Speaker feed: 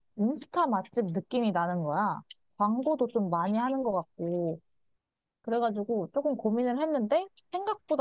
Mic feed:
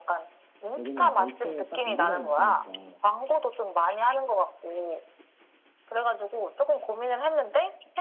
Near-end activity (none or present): present